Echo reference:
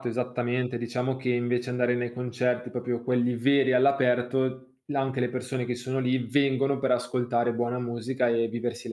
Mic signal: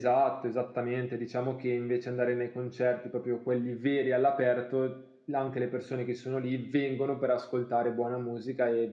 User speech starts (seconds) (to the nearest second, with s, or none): none